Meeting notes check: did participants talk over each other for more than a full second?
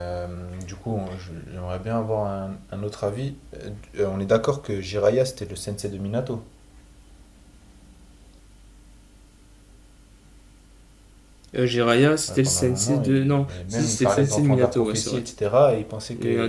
Yes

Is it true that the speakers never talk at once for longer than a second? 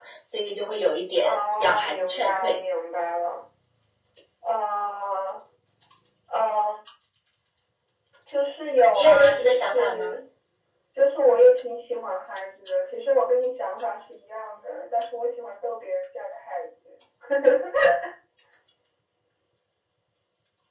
No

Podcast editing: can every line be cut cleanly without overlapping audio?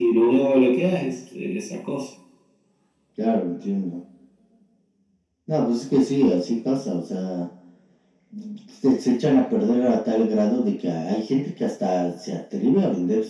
Yes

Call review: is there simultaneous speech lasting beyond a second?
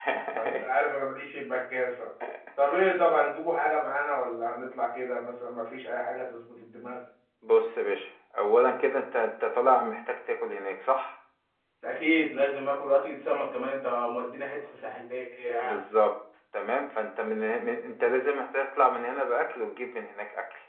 No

